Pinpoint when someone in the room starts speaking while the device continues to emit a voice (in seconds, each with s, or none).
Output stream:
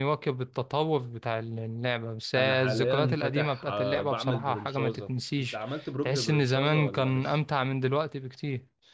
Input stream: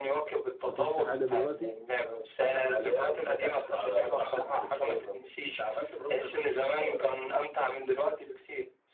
0.7 s